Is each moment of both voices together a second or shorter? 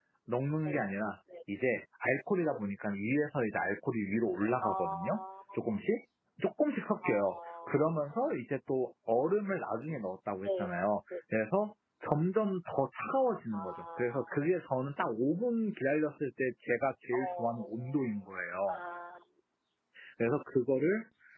No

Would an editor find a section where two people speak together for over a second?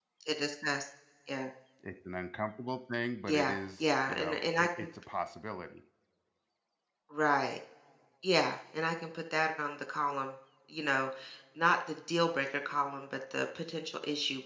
Yes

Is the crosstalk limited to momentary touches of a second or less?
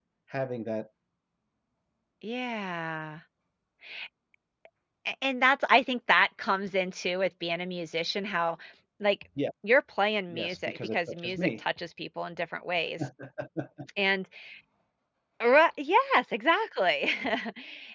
No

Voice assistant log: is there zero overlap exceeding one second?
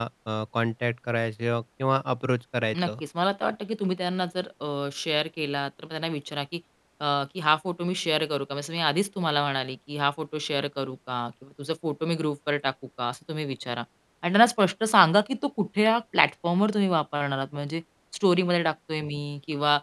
Yes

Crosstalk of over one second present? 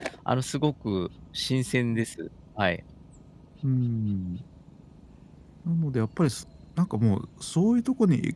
No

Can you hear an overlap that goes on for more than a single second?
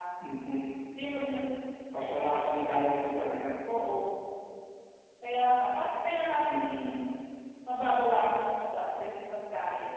No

